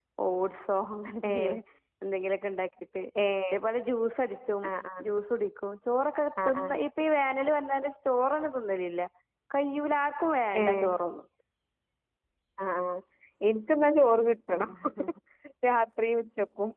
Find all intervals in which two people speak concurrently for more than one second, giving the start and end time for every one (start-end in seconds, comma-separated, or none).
none